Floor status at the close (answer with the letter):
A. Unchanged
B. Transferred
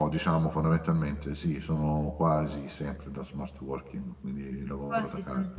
B